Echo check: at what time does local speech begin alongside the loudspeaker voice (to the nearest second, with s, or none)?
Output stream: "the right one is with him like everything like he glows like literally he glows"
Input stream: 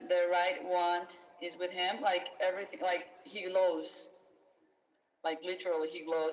none